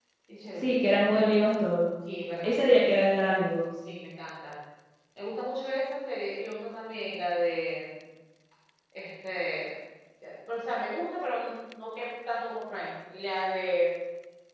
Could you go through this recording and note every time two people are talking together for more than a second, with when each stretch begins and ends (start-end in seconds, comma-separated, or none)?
none